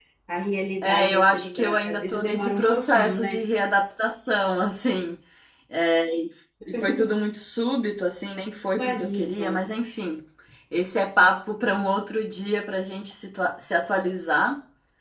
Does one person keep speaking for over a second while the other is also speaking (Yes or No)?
Yes